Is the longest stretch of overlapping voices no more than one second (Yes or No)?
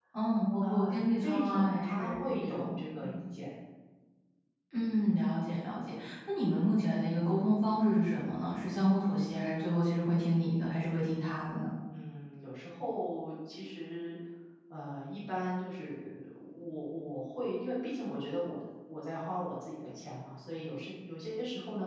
No